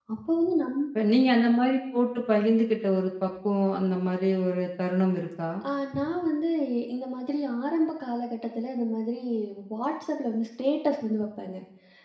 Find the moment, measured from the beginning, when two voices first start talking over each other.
none

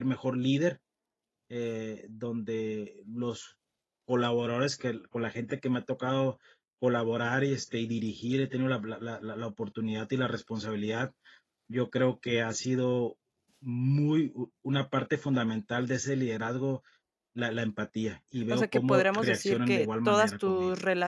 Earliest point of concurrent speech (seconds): 18.5 s

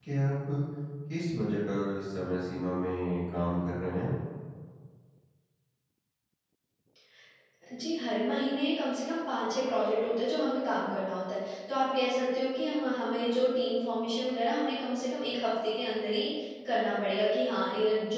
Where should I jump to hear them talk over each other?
none

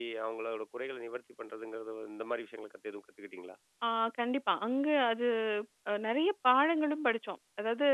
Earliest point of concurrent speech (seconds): none

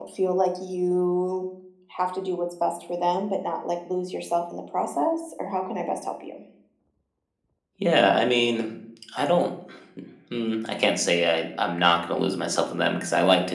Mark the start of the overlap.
none

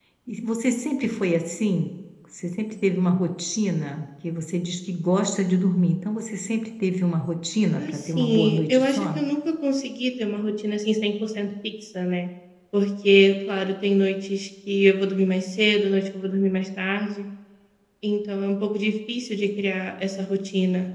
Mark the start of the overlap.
7.8 s

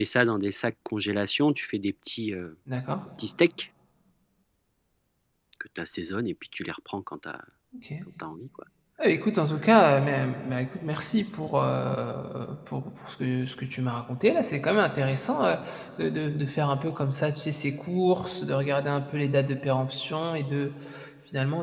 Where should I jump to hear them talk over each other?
none

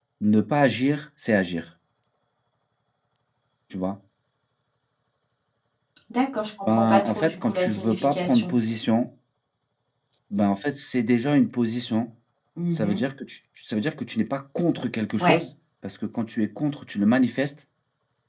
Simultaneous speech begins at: 6.7 s

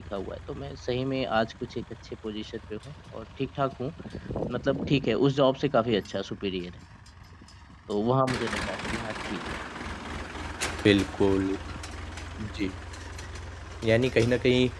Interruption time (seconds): none

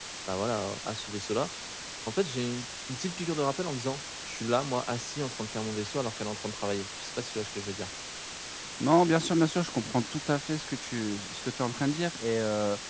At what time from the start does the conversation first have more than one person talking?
none

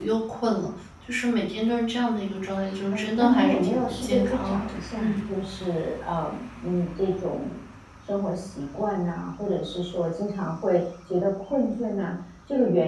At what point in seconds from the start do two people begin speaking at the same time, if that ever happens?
2.9 s

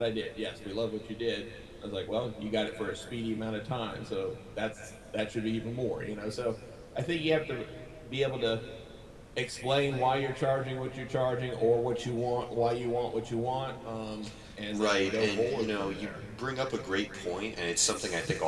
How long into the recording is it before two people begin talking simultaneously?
14.7 s

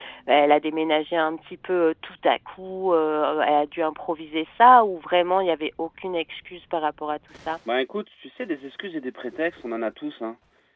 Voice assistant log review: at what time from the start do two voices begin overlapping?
none

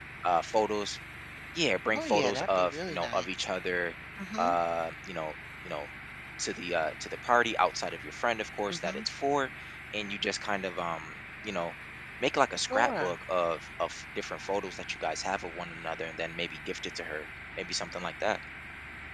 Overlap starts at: 1.9 s

